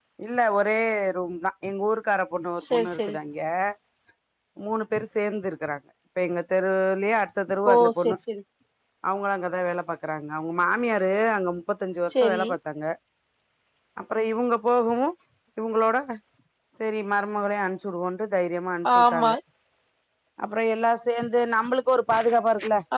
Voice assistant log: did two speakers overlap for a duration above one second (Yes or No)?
No